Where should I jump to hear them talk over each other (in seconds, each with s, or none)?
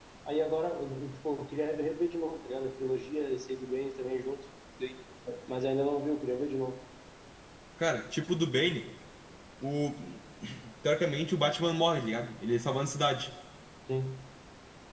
none